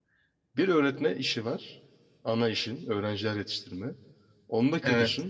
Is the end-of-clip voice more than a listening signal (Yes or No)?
No